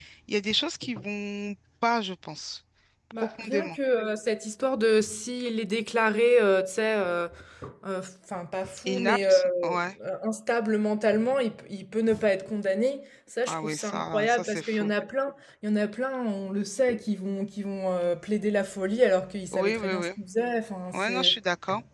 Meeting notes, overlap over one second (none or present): present